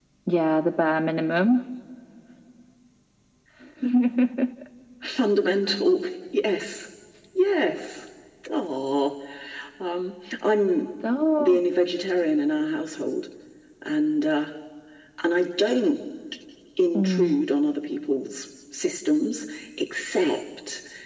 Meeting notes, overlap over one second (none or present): none